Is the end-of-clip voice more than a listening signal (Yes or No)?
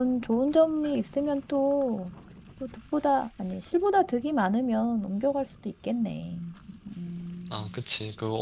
Yes